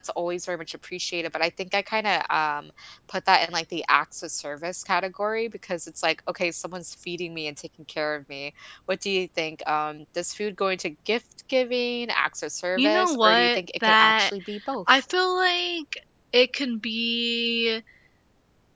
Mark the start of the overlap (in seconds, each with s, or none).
12.8 s